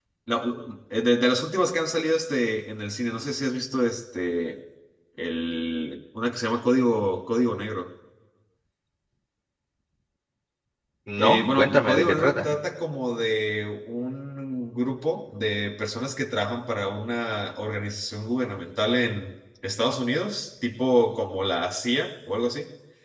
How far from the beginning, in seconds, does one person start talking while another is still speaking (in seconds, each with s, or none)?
11.2 s